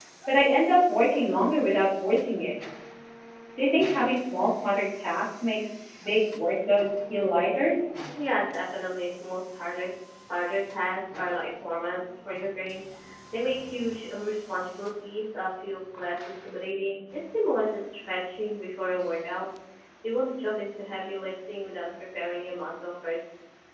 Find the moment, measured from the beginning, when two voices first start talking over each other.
none

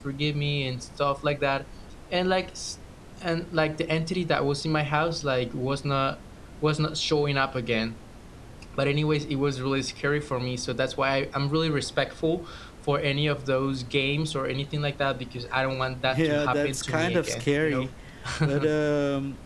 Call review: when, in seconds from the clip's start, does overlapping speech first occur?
16.1 s

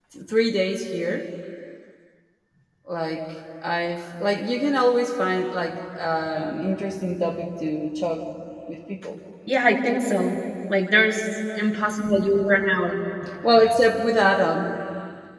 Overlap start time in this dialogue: none

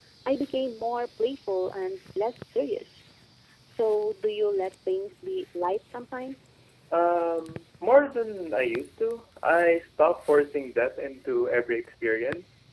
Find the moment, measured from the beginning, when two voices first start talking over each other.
none

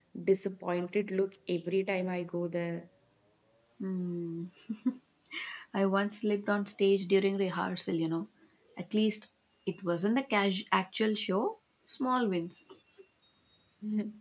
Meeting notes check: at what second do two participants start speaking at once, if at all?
none

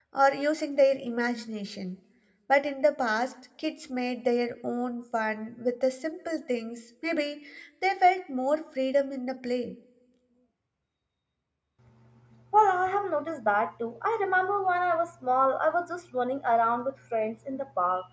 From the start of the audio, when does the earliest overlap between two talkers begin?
none

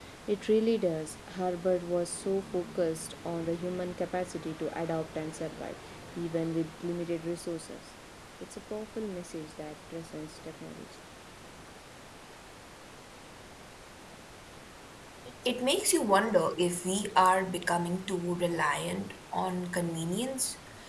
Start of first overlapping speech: none

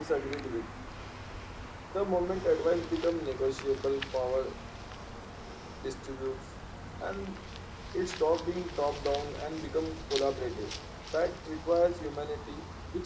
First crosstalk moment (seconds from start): none

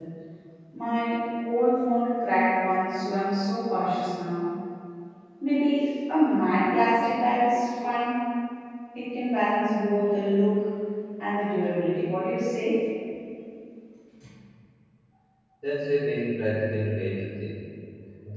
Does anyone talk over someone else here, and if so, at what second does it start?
none

